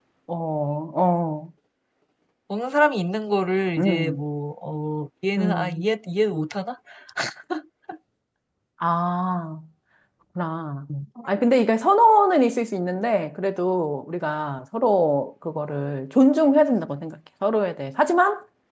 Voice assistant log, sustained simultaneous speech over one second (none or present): none